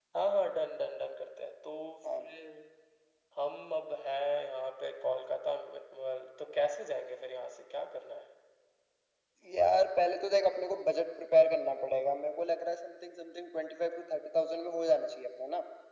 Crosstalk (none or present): none